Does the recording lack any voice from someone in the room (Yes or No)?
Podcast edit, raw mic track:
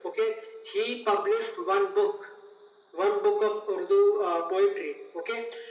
Yes